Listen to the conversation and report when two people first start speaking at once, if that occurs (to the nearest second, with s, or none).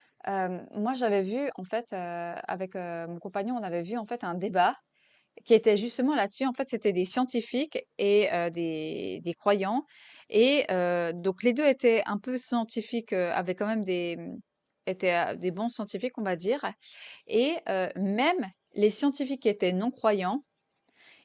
none